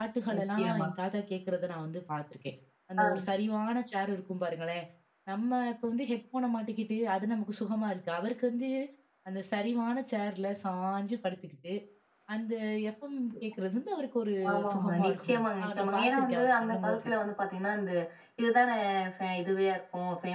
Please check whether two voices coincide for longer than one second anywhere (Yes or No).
Yes